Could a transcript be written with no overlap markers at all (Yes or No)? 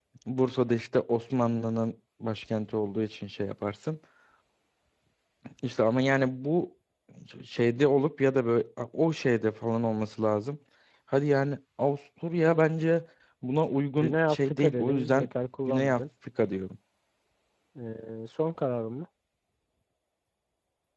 No